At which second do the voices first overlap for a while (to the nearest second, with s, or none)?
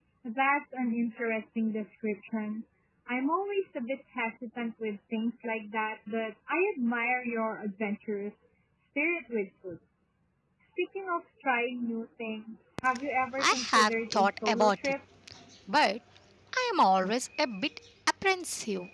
13 s